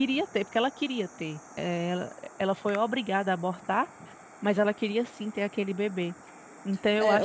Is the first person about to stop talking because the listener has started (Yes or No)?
Yes